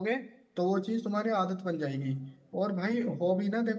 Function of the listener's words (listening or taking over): listening